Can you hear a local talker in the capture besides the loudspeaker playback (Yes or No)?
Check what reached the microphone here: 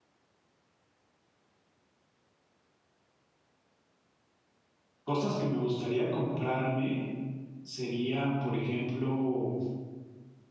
Yes